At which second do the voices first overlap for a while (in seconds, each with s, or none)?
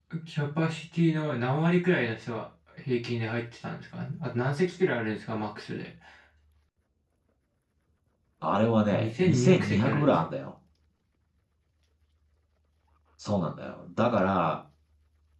8.9 s